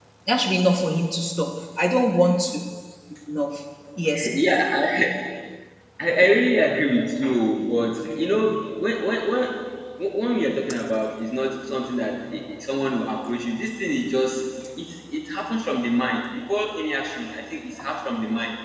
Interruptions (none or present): none